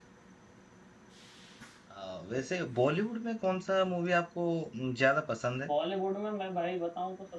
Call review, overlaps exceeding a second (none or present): none